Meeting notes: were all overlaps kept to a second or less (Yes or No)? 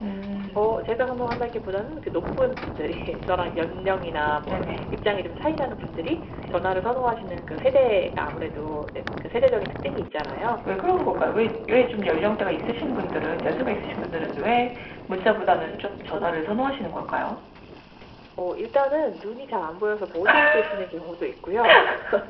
Yes